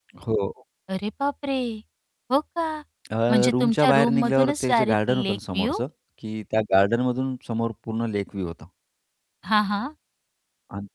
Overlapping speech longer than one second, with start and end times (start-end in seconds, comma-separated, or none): 3.5-5.7